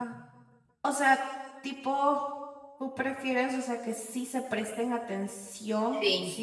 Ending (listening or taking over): listening